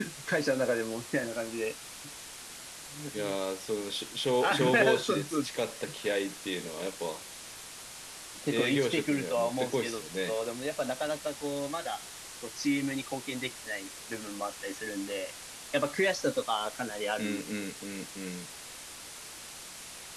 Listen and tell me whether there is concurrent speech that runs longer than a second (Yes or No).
Yes